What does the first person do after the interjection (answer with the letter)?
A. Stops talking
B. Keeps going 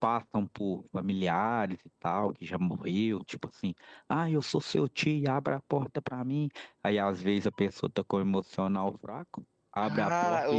A